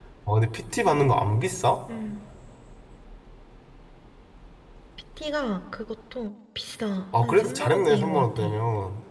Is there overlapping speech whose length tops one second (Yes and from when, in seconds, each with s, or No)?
Yes, from 7.1 s